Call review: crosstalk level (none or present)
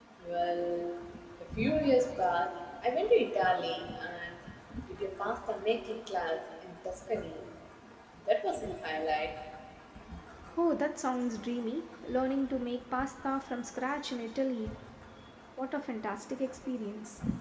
none